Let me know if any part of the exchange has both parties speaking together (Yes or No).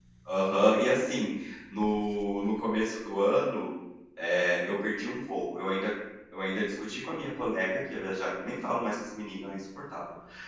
No